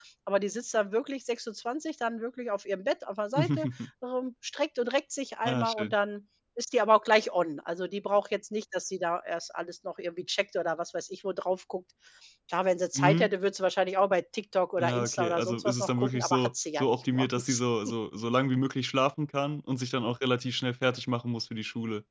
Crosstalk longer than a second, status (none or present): present